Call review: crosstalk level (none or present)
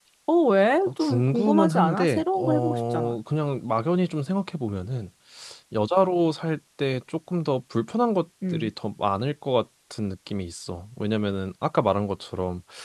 present